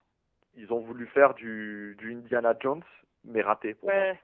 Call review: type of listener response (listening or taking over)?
taking over